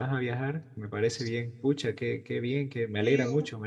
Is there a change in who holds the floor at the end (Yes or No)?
Yes